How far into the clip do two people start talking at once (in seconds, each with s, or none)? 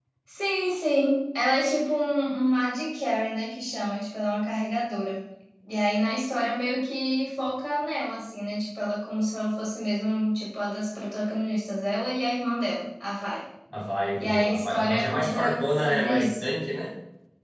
14.2 s